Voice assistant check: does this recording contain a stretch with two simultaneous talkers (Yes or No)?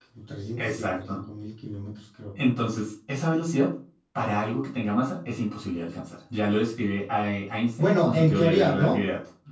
Yes